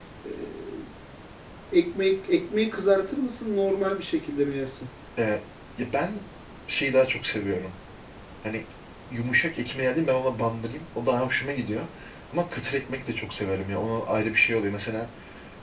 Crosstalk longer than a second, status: none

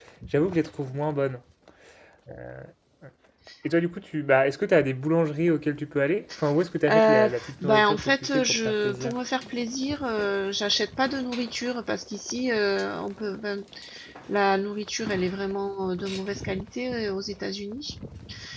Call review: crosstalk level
present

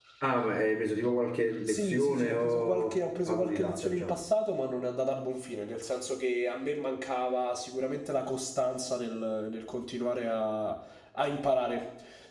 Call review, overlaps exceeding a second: present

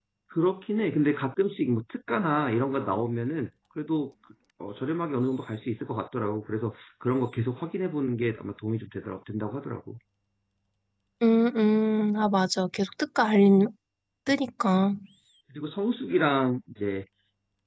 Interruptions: none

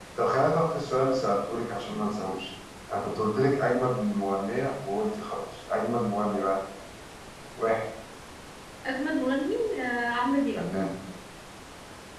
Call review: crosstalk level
none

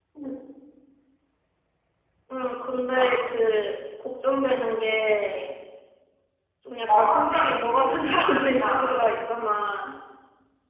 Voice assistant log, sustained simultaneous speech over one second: present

